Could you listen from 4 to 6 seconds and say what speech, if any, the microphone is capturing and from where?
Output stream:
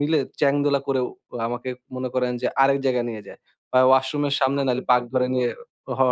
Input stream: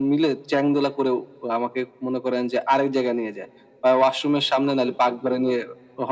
echo only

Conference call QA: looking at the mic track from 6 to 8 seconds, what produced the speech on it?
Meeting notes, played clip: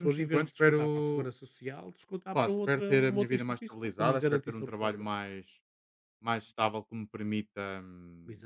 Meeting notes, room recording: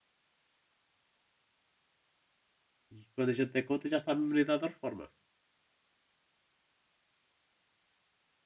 neither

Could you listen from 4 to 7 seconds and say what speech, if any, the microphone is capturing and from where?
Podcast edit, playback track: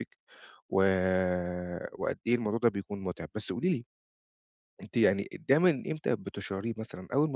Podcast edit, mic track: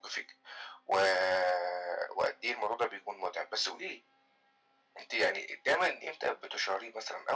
echo only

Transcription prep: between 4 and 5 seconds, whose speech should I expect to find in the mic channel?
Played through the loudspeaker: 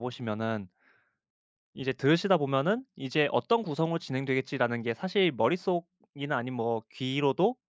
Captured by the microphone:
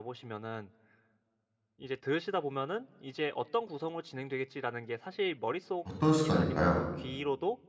echo only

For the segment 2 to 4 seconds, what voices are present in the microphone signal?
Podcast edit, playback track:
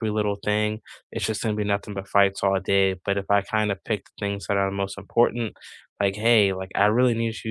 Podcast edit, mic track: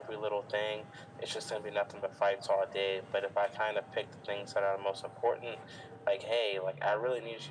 echo only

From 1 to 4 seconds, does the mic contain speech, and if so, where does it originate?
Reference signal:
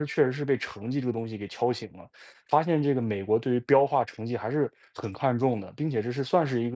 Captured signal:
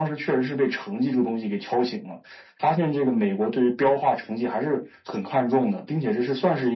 echo only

